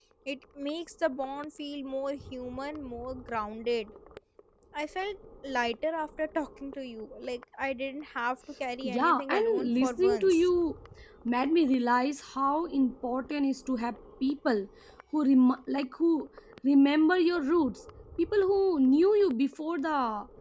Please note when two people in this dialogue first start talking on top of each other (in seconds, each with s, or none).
8.8 s